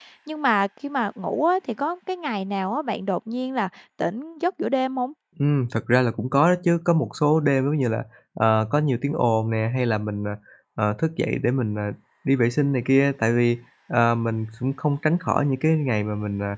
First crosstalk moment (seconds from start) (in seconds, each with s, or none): none